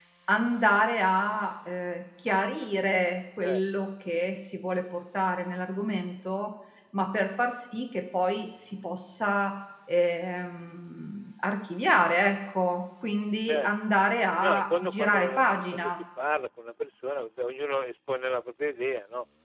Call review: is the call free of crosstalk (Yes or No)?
No